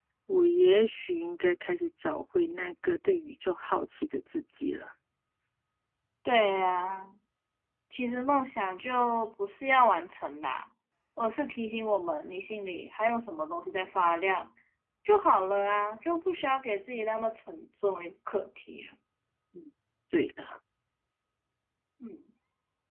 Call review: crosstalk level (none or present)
none